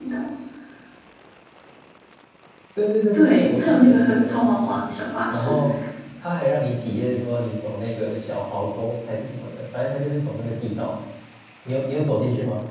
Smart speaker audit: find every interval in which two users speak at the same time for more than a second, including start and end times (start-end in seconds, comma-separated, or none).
3.1-4.8